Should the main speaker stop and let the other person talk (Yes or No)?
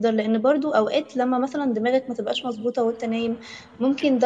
No